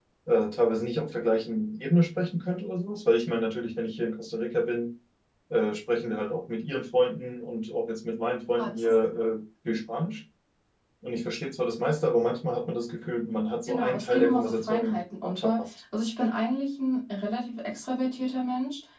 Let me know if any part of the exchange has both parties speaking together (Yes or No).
Yes